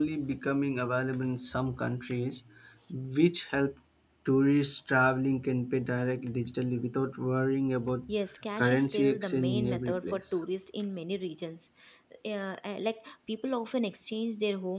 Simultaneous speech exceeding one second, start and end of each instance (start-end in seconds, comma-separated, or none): 8.6-10.4